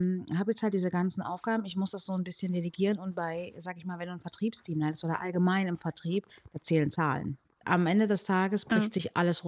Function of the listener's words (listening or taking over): listening